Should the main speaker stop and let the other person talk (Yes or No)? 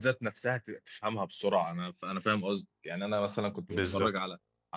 No